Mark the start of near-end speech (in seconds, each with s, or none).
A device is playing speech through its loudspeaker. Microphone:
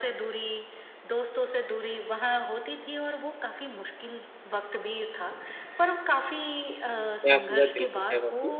7.2 s